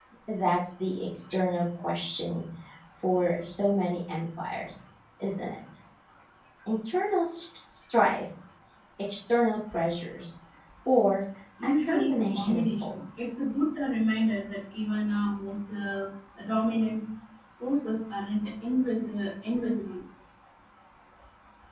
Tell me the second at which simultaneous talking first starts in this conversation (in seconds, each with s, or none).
11.6 s